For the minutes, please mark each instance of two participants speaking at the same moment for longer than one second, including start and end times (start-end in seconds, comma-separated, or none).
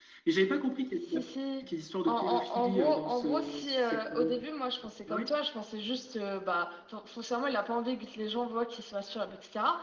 2.1-4.3